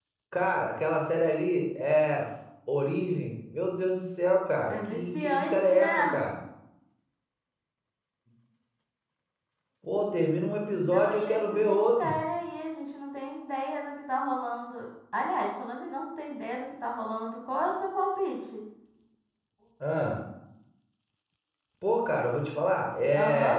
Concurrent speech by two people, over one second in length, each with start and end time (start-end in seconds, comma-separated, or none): 4.7-6.3, 10.8-12.1